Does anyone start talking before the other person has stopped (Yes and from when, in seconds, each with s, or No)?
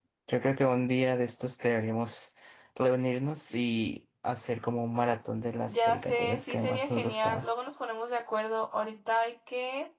Yes, from 5.7 s